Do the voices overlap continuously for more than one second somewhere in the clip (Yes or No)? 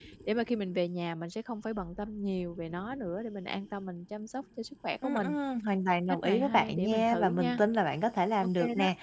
Yes